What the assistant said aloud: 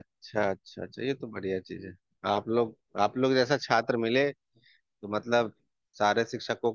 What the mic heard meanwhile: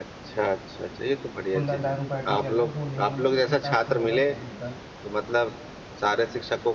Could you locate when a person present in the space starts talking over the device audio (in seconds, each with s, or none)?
1.5 s